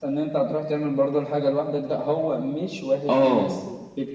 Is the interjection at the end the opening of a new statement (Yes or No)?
No